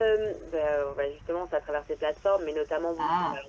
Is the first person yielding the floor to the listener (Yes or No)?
No